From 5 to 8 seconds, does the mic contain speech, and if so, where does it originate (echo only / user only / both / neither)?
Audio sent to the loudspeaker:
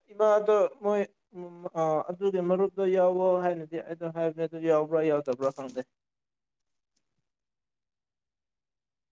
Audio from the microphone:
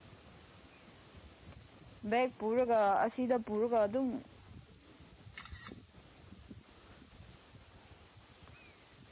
neither